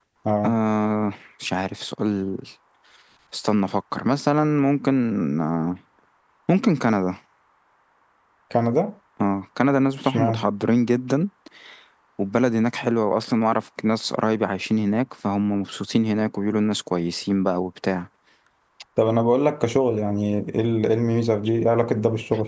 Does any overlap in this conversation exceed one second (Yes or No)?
No